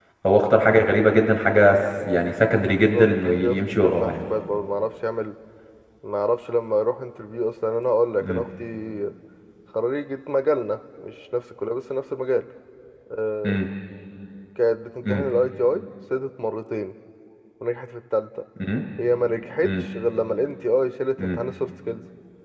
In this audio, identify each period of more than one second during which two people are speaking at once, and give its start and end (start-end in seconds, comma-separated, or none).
2.7-4.2